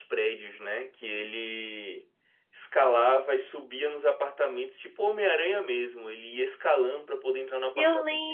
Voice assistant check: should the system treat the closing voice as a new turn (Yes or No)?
Yes